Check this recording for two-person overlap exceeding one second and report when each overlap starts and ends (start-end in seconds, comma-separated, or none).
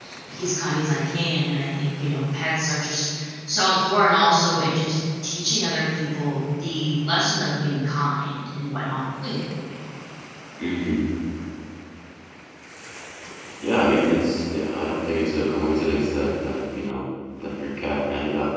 none